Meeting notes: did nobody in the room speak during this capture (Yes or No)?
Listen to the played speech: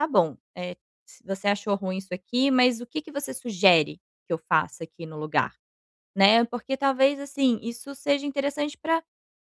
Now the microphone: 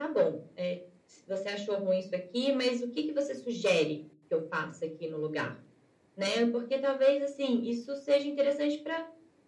Yes